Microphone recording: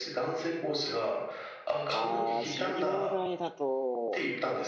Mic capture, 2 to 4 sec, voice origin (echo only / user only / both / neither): both